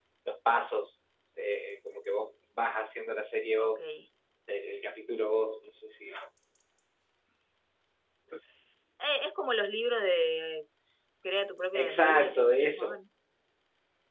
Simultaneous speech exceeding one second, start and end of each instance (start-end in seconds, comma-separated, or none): 11.7-13.0